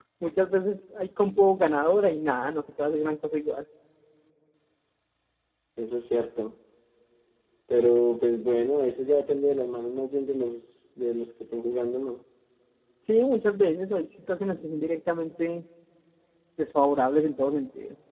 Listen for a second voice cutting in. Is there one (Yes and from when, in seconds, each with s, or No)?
No